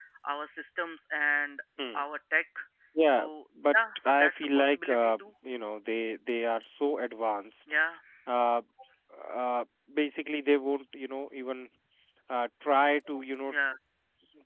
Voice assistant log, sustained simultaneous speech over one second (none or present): present